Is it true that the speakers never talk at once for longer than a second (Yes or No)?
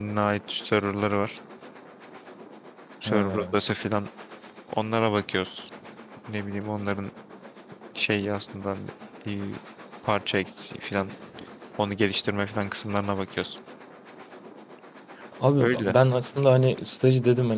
Yes